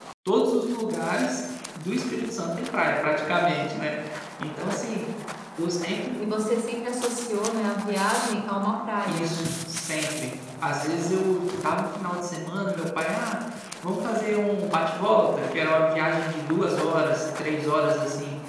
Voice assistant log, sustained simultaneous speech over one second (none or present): none